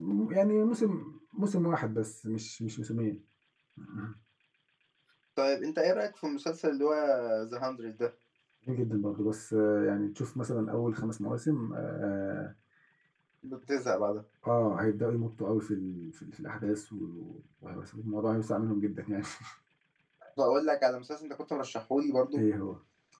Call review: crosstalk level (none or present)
none